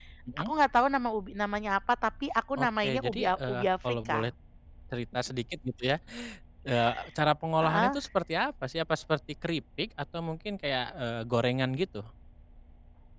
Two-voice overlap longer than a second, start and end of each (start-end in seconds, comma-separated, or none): 2.6-4.3